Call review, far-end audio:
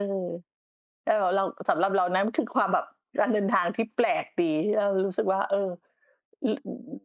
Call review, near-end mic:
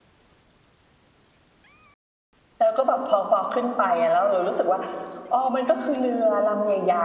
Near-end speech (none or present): present